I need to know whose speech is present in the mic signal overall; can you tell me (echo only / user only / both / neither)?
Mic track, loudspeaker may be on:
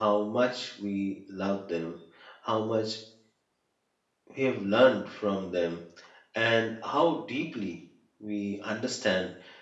user only